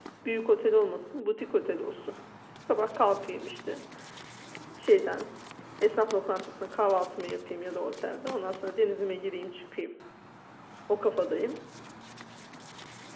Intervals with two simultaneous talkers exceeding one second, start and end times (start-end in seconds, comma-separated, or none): none